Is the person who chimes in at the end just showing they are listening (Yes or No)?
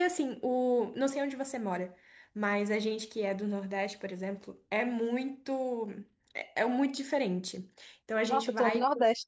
No